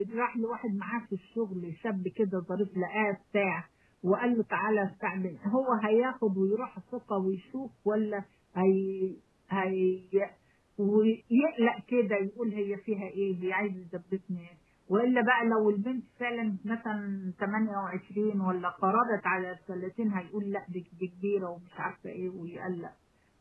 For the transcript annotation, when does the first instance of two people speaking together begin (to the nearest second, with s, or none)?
none